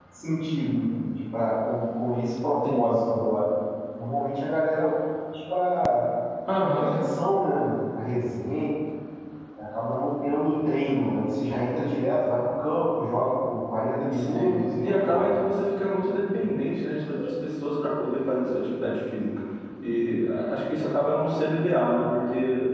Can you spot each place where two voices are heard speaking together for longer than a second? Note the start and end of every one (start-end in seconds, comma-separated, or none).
14.1-15.4